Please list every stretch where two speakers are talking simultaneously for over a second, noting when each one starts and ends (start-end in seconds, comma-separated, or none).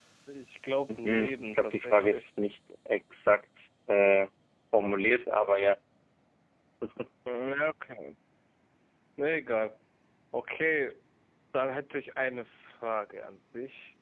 0.9-2.3